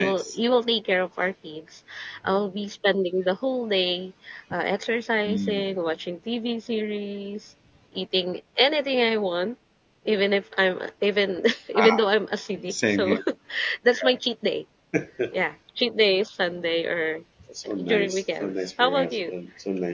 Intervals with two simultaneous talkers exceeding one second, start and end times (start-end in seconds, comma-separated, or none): 17.8-19.3